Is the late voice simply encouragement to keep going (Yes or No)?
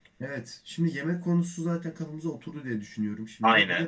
Yes